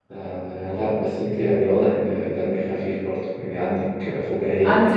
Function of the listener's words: listening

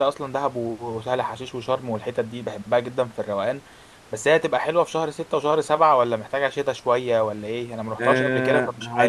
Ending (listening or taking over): taking over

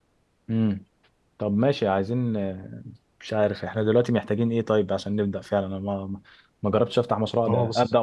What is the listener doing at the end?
listening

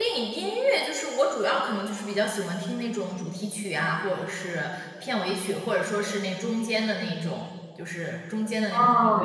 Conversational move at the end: taking over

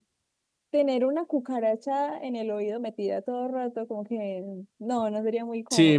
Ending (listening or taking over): taking over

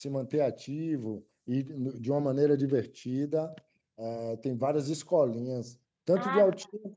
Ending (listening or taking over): taking over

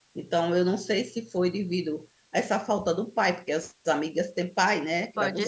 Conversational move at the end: taking over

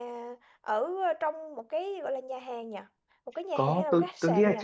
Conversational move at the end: taking over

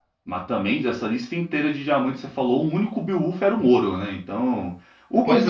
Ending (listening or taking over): listening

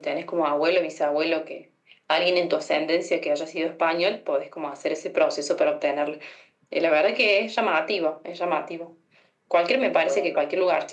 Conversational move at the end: listening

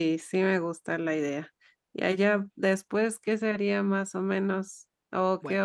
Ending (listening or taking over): listening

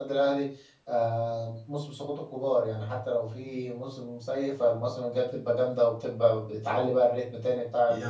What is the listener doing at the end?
taking over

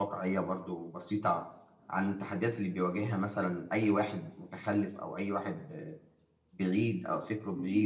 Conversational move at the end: listening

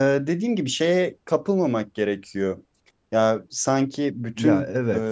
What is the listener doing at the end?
listening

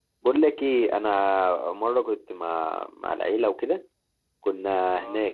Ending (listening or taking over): listening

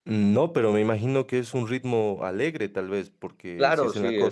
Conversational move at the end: taking over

